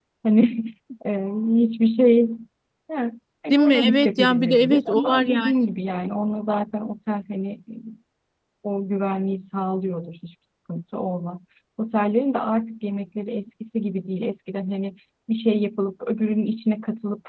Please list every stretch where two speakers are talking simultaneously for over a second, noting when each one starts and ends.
3.5-5.5

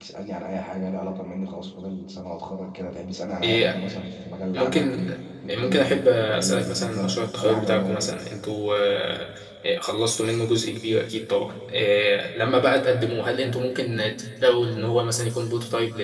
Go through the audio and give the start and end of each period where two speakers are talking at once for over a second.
5.5-8.2

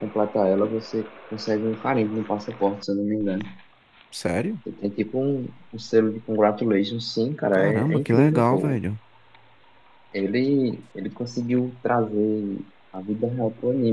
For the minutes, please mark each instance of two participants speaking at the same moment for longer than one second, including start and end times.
7.5-8.8

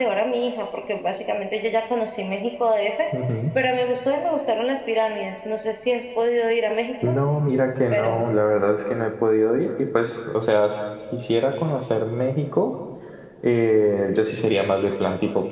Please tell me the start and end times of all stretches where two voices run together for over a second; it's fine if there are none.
none

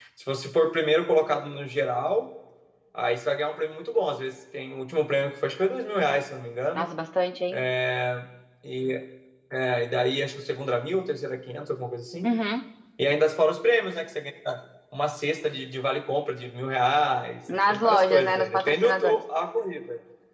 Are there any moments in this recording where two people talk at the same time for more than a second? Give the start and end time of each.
17.7-19.2

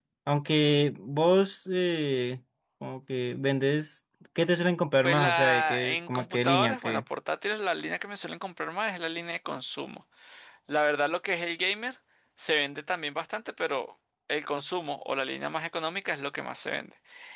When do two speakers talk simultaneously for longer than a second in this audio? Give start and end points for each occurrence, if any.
5.0-7.0

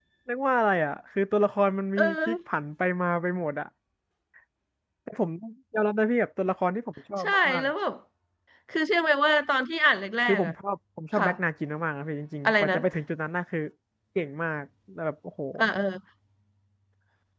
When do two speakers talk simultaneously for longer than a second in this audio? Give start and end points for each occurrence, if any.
none

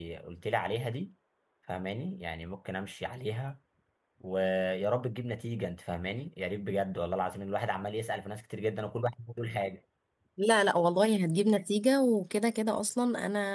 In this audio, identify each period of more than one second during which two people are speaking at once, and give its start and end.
none

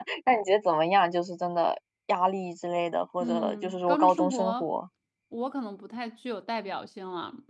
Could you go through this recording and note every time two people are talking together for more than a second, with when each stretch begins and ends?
3.2-4.7

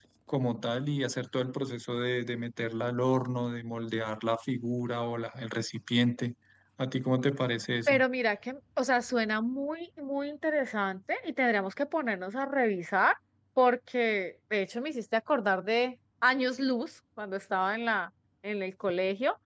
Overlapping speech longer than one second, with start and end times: none

